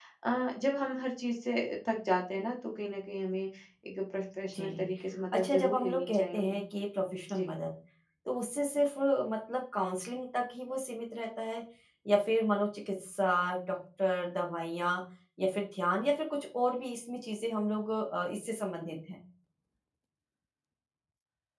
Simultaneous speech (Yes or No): Yes